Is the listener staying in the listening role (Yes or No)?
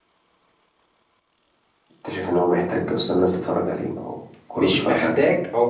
No